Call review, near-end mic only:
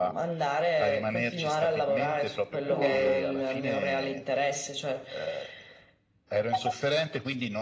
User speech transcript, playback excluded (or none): Cosa?